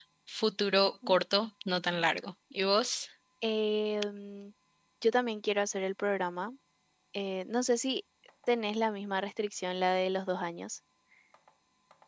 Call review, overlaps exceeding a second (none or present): none